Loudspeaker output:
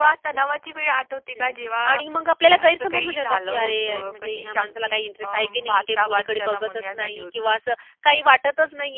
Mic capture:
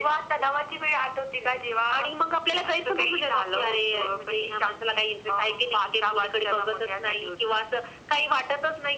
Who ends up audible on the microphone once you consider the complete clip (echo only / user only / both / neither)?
echo only